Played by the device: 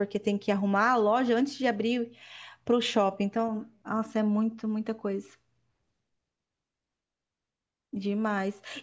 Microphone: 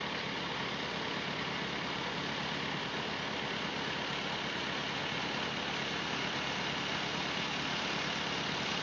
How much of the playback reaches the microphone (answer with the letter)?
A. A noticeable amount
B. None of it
B